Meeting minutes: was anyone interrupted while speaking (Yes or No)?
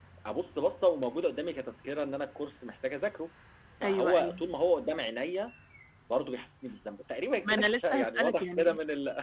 Yes